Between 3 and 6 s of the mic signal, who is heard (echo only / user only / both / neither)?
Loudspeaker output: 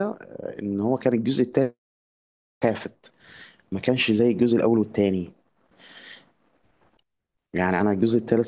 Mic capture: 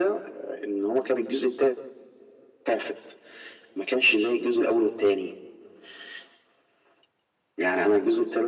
echo only